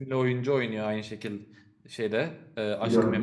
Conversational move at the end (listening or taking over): listening